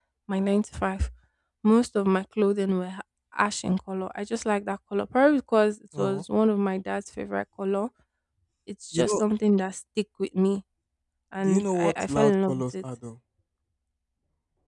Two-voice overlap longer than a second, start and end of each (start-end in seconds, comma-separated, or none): 11.4-12.8